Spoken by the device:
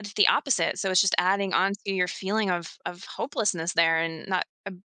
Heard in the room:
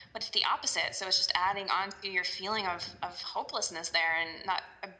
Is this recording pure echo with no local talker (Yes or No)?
Yes